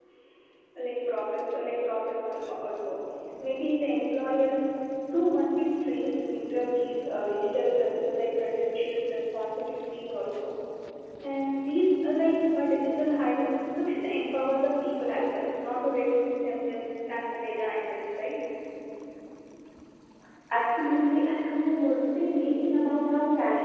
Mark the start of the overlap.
none

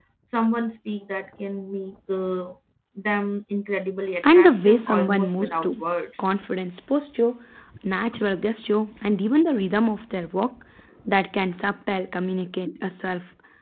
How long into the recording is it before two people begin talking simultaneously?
4.2 s

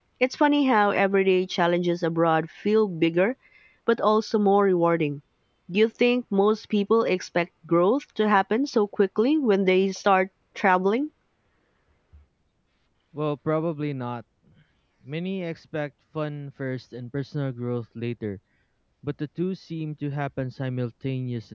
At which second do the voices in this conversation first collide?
none

